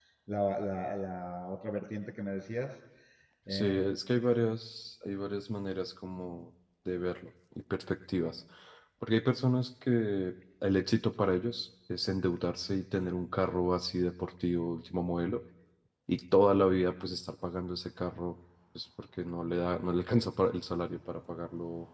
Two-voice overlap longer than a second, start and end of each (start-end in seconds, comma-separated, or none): none